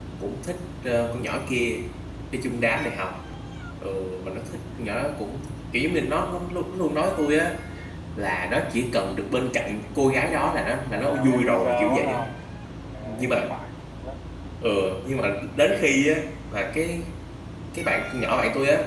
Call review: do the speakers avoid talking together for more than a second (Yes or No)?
No